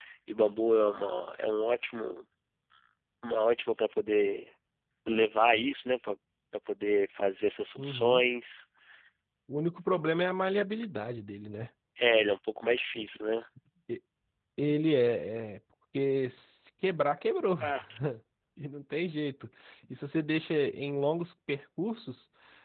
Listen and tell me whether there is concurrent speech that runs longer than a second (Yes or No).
No